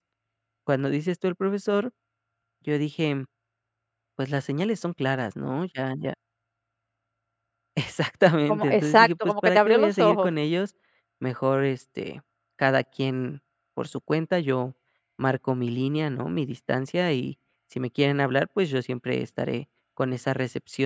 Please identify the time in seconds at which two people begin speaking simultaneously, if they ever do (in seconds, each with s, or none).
8.5 s